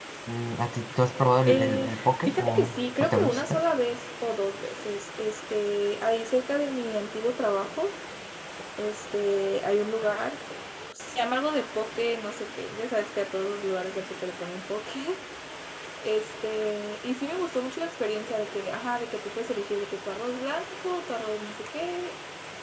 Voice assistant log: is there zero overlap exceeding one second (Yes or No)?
No